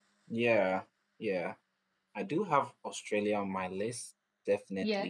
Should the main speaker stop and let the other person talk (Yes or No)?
No